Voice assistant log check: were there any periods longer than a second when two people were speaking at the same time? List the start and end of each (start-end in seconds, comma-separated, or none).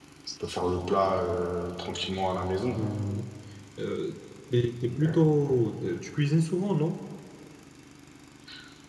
none